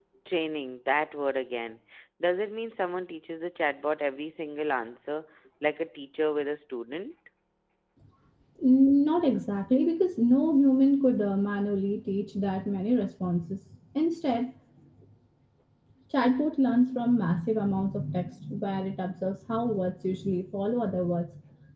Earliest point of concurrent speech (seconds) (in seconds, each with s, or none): none